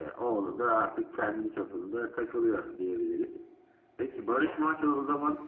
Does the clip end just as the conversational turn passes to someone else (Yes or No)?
No